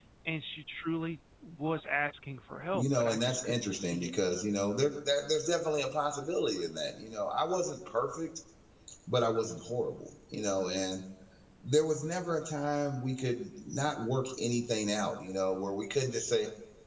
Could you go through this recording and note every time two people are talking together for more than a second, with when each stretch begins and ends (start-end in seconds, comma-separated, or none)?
2.7-4.1